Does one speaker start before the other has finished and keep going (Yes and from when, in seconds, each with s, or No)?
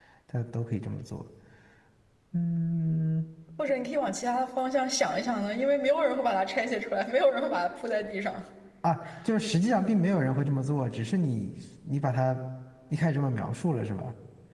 No